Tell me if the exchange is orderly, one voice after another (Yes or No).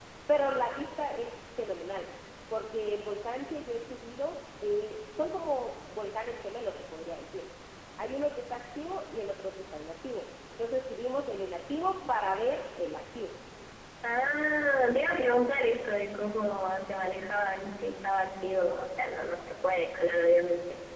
Yes